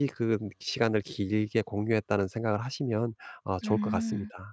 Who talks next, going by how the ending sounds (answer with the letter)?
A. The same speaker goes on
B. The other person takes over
B